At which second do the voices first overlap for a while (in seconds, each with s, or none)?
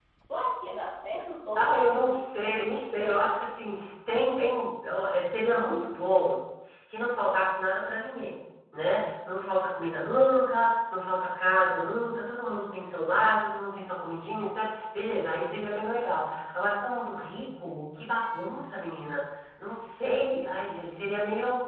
1.6 s